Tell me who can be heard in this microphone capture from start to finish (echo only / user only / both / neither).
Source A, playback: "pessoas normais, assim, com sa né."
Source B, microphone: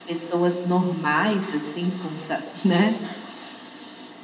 echo only